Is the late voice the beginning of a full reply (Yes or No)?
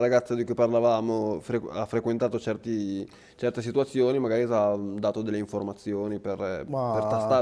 No